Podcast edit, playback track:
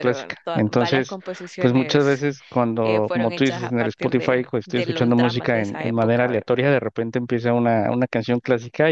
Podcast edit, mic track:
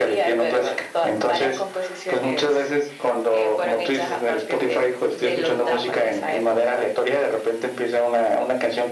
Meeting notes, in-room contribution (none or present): none